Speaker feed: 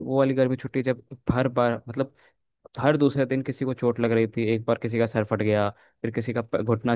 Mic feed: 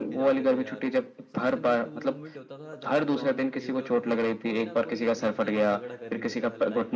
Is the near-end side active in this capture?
Yes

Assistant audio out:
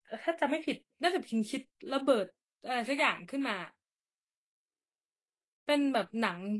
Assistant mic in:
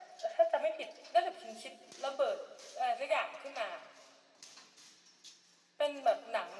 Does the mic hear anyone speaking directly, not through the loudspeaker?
No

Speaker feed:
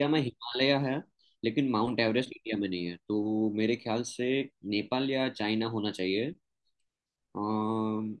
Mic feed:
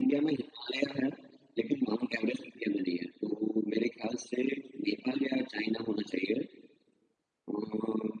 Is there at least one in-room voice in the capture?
No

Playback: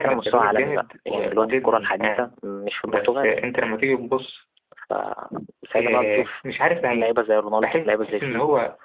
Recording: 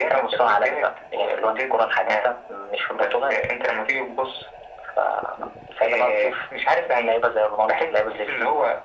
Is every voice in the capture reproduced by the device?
Yes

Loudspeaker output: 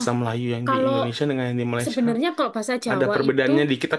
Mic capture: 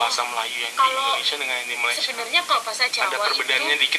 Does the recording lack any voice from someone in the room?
Yes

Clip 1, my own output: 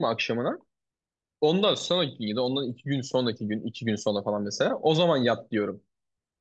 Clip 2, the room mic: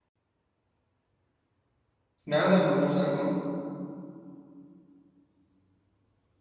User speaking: Yes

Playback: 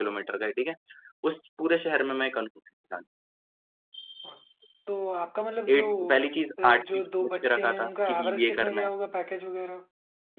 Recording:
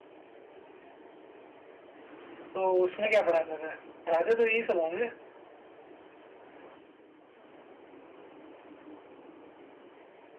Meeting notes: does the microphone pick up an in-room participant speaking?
Yes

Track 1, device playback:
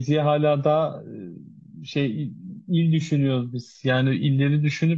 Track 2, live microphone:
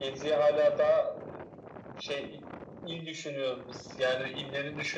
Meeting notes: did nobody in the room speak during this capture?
Yes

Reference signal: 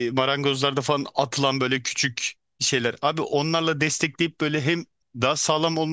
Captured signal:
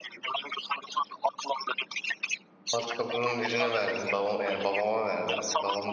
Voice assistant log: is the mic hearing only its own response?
No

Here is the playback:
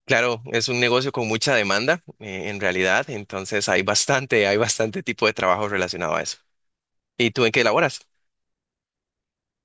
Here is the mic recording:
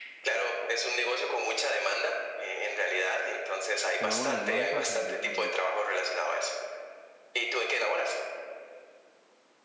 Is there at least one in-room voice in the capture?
Yes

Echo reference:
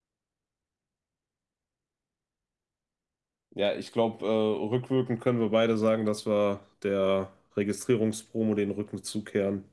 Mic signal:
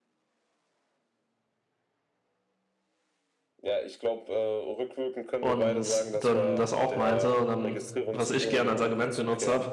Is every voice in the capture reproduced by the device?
No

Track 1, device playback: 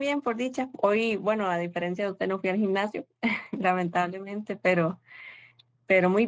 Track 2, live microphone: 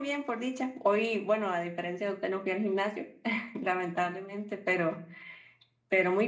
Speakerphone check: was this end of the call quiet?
Yes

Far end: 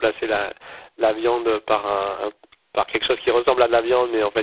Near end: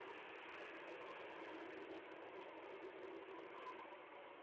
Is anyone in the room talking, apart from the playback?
No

